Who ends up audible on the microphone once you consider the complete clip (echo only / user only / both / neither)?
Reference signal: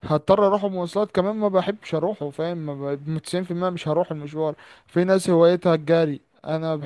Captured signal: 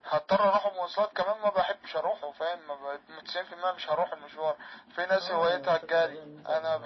both